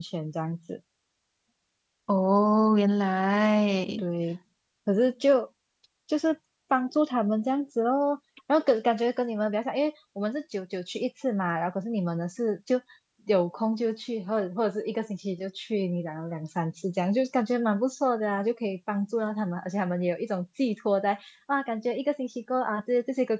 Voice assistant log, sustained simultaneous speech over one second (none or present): none